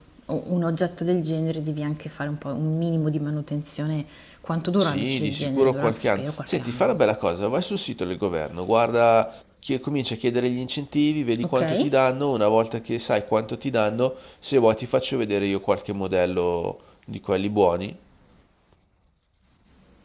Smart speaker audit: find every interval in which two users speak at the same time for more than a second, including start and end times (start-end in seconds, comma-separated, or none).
4.8-7.0